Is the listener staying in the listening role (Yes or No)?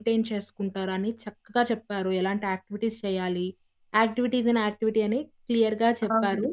Yes